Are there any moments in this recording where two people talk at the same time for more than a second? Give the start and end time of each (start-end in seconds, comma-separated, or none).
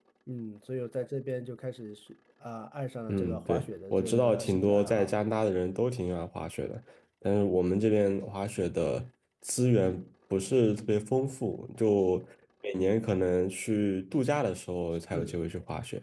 3.1-5.1